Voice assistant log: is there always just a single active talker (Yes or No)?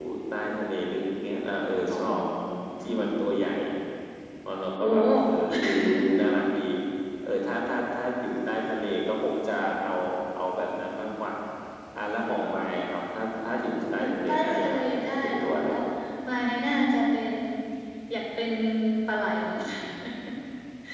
No